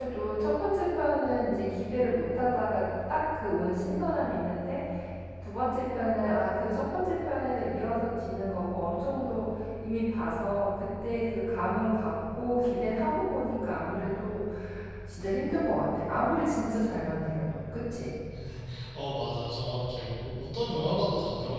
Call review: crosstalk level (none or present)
none